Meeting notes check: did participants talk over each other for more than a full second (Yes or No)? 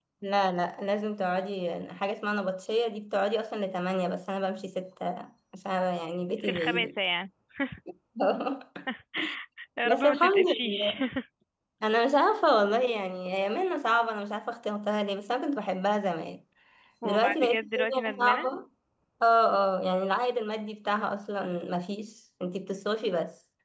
Yes